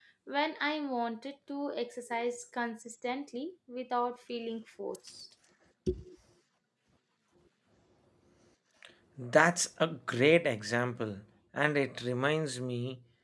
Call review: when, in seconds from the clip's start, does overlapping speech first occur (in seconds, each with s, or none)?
none